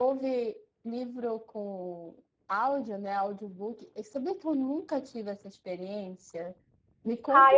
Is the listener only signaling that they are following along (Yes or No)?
No